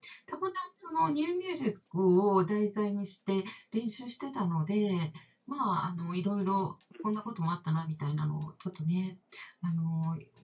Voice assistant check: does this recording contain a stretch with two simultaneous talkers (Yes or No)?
No